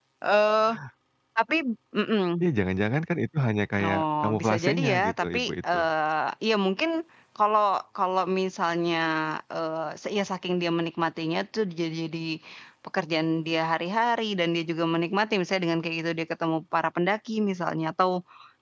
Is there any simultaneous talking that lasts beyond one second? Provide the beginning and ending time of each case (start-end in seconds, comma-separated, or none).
3.8-5.8